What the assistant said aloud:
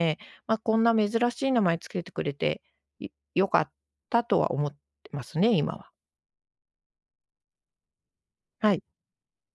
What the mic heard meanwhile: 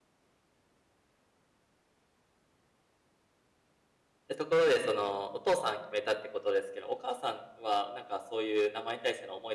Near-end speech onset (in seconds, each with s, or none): 4.4 s